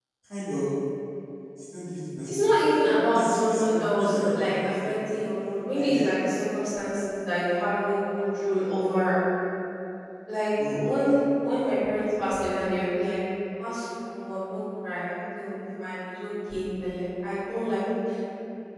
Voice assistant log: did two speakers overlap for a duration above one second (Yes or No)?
Yes